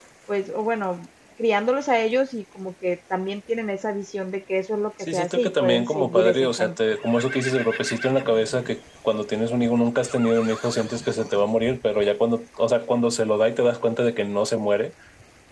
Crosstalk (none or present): present